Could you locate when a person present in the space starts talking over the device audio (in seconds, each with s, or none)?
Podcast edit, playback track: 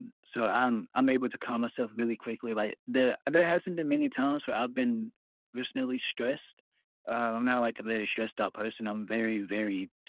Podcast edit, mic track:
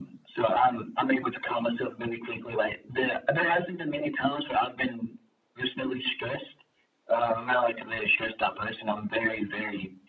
none